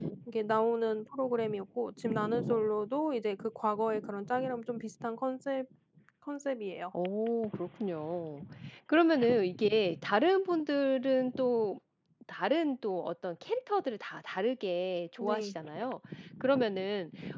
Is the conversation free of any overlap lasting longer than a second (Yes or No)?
Yes